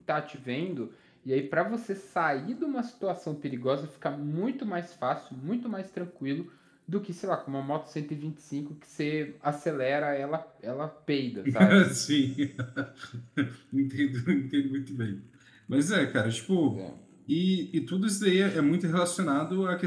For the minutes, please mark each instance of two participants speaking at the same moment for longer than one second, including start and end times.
none

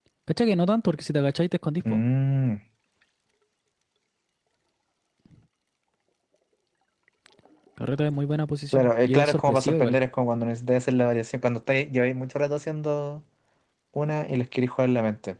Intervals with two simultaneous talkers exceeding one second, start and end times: 8.7-10.0

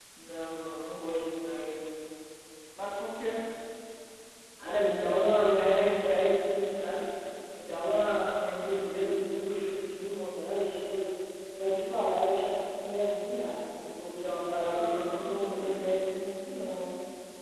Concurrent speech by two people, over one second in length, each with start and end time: 14.6-15.8

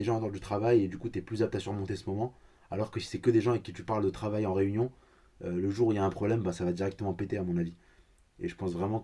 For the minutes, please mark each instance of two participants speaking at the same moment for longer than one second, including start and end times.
none

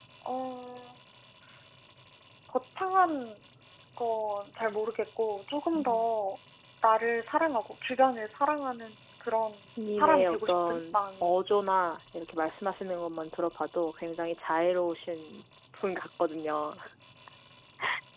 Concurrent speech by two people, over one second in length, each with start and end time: 10.0-11.3

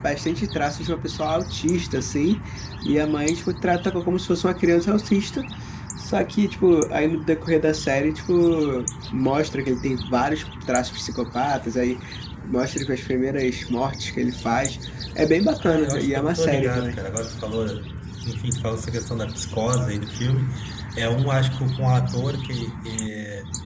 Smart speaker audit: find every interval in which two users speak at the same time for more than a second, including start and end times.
15.6-17.0

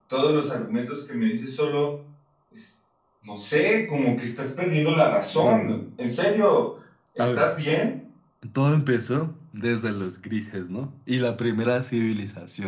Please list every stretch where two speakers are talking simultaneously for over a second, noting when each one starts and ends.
none

